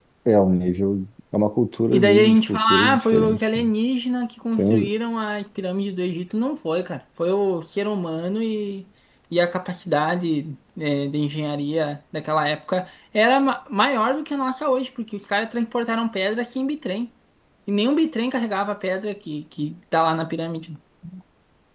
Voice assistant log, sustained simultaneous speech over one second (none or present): present